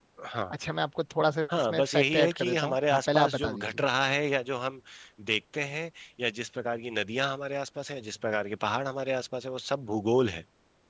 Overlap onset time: 1.5 s

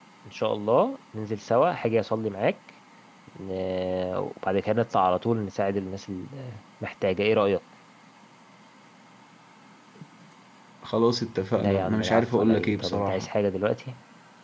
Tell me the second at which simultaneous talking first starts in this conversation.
11.6 s

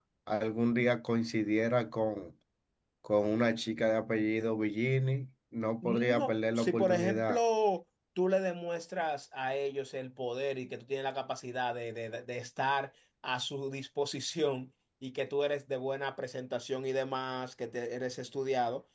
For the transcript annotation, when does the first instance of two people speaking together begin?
5.8 s

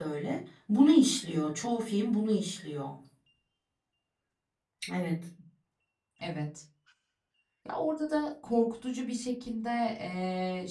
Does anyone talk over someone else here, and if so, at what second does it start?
none

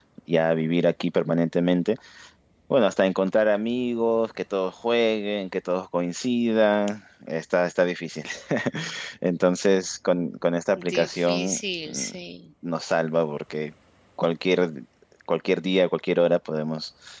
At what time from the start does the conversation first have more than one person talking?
10.8 s

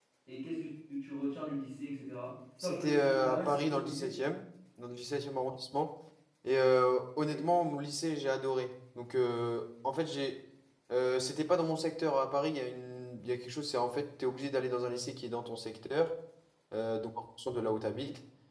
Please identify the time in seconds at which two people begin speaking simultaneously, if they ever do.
2.6 s

